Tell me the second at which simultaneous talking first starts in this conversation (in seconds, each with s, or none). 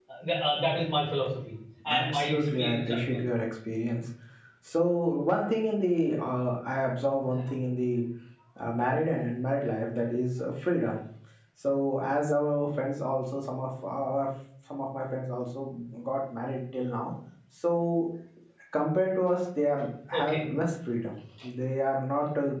1.9 s